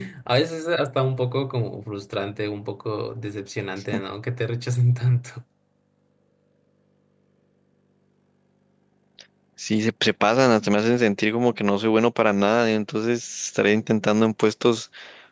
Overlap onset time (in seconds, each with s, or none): none